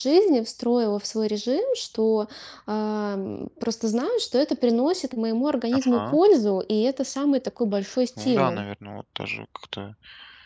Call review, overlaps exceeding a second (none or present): none